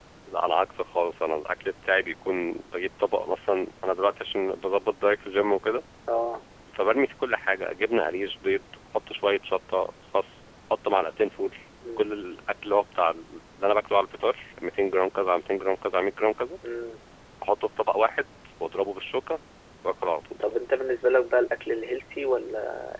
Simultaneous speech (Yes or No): No